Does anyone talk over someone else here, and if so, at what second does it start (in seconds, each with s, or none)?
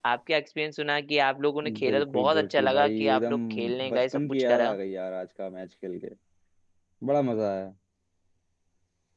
1.6 s